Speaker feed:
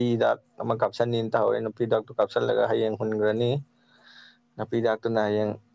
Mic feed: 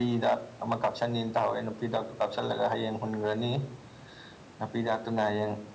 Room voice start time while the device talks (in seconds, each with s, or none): none